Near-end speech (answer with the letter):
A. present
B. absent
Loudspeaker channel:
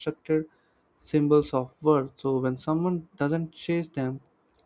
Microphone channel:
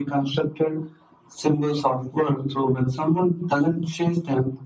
B